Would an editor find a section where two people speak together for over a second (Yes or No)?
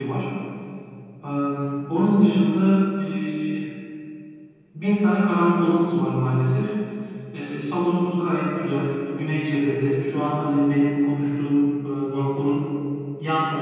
No